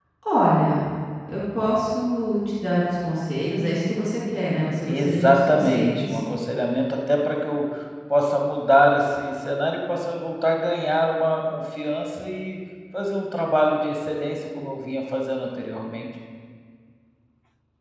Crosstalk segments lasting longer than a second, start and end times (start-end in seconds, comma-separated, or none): 4.9-6.2